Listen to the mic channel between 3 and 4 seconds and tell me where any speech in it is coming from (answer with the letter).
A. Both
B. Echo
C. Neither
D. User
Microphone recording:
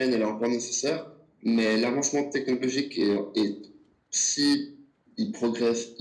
B